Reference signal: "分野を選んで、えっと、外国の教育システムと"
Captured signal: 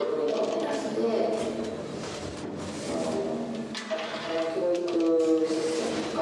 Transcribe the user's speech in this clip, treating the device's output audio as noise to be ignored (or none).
none